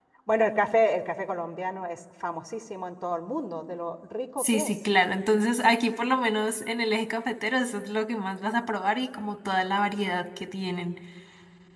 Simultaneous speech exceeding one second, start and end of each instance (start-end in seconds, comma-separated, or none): none